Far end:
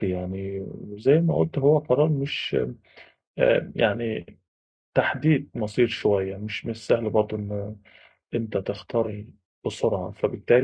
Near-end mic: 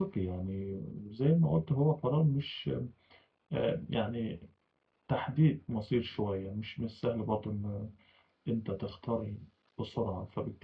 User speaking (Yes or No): No